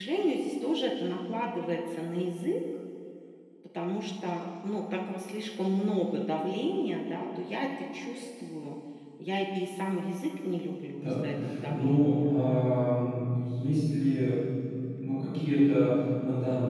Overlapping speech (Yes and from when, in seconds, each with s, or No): Yes, from 11.0 s